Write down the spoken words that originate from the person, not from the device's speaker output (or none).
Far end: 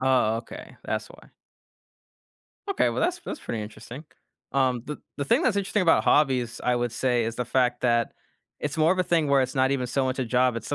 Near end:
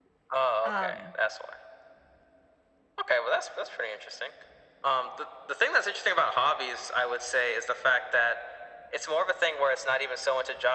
Um,